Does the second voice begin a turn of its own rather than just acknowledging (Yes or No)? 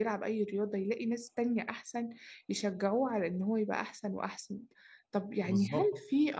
No